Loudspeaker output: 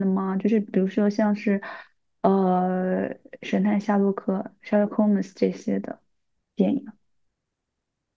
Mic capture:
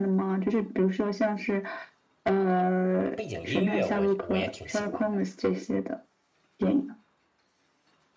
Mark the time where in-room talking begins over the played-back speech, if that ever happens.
3.1 s

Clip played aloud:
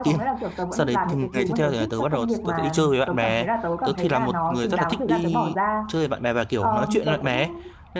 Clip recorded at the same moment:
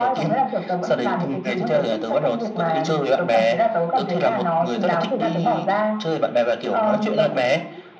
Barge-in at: none

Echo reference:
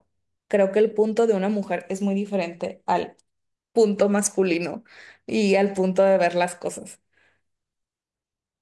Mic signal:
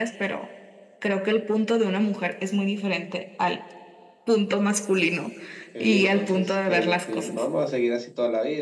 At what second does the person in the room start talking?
5.7 s

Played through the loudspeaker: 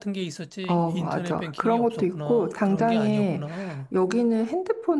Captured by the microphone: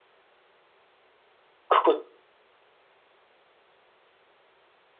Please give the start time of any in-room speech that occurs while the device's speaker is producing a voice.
1.7 s

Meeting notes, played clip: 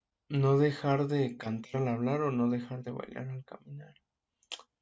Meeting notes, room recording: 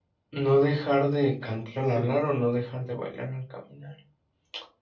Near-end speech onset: 1.8 s

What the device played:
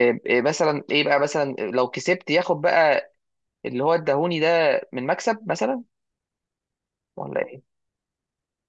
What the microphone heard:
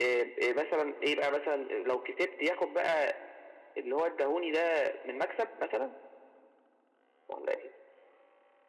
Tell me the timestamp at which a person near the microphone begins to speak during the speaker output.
none

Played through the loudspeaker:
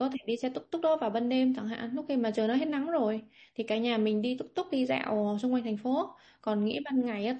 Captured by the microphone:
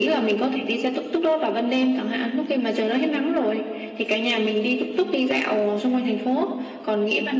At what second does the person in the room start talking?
none

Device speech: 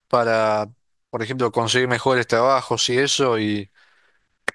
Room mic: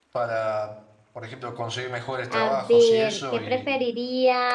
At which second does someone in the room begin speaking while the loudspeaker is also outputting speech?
2.3 s

